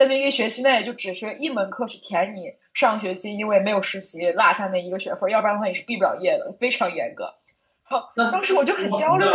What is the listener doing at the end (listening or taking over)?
taking over